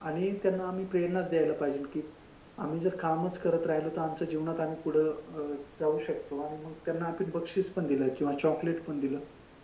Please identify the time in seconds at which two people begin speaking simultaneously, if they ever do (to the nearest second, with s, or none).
none